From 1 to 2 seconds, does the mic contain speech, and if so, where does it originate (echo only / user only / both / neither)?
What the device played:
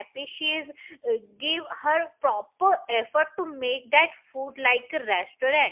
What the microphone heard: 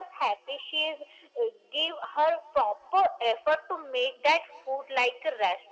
echo only